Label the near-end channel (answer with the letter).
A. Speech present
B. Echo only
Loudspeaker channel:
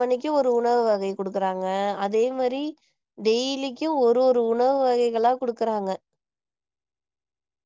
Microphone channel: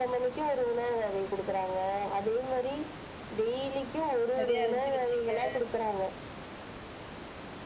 A